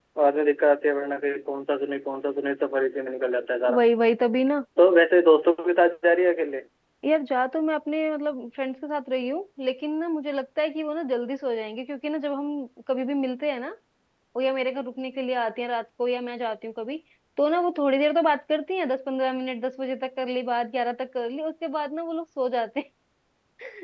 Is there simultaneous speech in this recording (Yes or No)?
No